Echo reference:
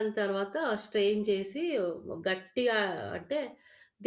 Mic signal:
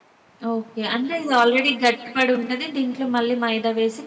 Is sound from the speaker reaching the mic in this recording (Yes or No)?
No